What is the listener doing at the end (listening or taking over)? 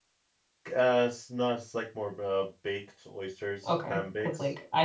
taking over